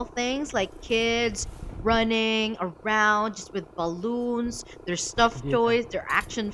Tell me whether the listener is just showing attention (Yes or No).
Yes